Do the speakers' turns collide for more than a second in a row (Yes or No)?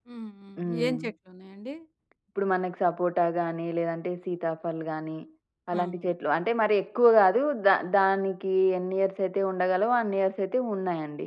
No